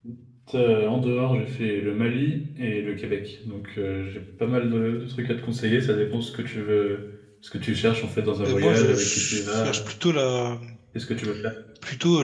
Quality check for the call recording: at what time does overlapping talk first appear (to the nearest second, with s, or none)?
8 s